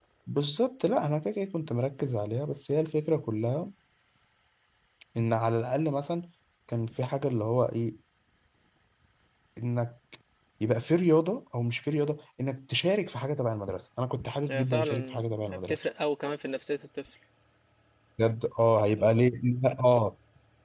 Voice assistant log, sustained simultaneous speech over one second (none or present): present